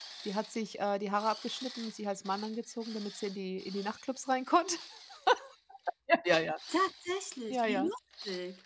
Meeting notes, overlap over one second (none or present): none